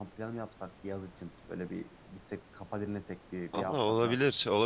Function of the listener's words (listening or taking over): taking over